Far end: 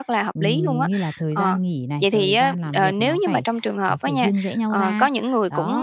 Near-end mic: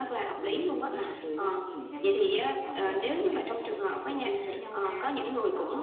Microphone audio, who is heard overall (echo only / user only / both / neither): both